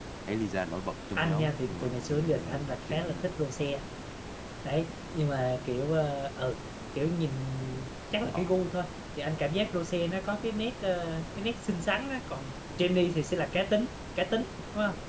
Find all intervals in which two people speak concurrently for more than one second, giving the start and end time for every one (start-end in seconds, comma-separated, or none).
1.1-3.3